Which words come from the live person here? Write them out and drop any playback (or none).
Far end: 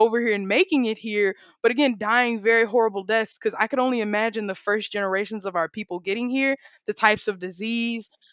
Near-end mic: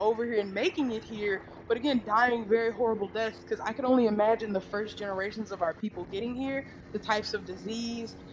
none